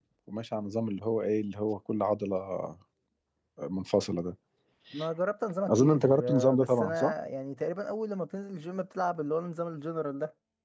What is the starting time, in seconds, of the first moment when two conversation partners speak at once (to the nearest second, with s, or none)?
6 s